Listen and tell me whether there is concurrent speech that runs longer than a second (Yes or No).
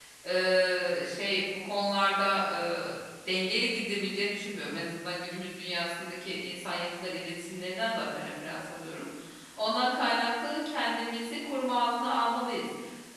No